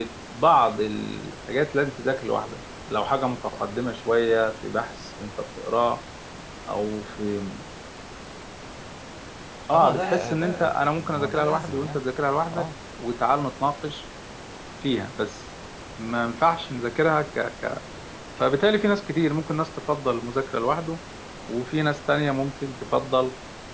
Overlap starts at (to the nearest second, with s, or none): 10 s